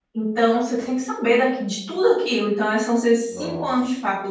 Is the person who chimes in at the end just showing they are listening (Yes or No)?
Yes